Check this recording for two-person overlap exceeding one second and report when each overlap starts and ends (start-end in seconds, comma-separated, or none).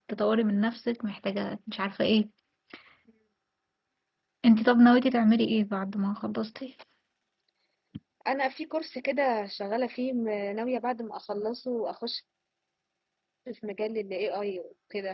none